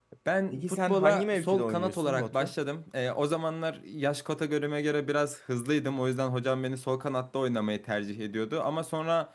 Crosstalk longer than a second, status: present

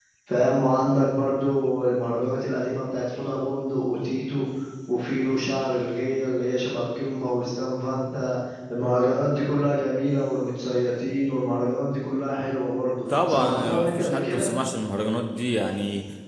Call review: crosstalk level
present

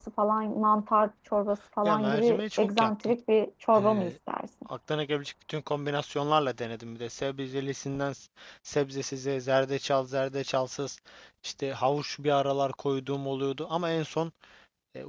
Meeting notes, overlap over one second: present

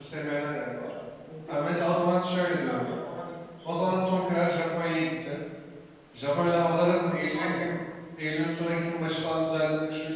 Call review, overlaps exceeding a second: none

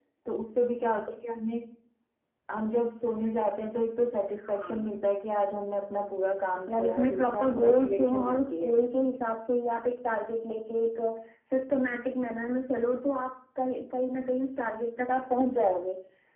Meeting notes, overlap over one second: present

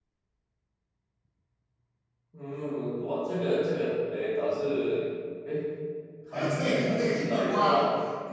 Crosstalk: present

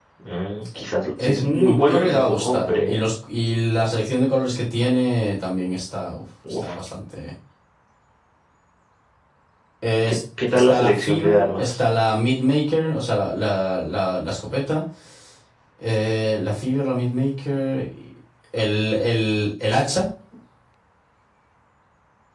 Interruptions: present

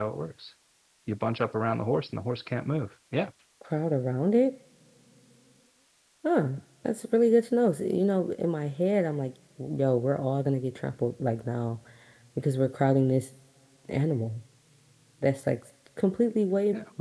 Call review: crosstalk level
none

